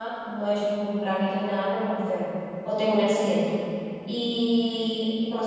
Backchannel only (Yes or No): Yes